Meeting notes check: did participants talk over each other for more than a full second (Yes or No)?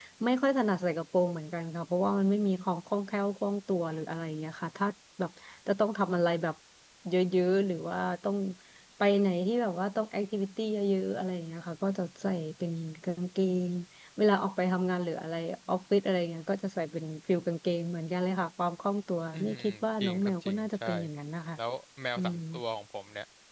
Yes